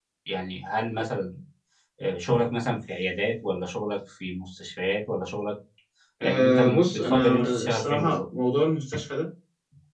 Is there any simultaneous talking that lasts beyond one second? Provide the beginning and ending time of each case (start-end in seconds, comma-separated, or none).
6.2-8.2